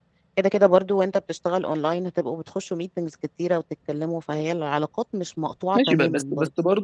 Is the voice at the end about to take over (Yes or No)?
Yes